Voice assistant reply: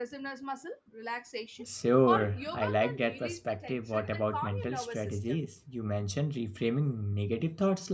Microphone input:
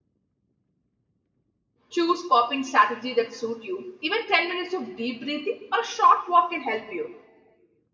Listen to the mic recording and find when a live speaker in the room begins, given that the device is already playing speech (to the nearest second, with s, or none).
2 s